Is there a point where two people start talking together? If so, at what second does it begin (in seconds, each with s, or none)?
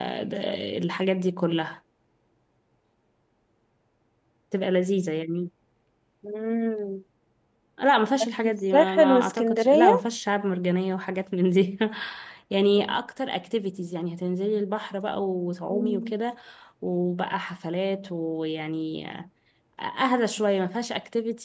8.4 s